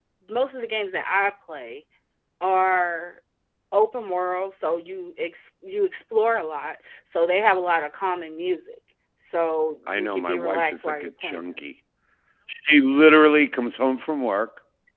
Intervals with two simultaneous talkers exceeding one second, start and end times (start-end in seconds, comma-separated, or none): 9.9-11.6